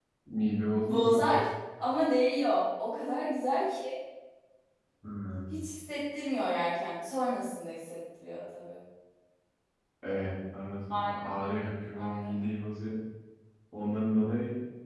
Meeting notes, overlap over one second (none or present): none